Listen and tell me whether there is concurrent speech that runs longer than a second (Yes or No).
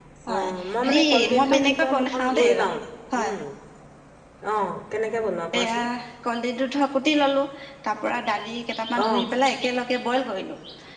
Yes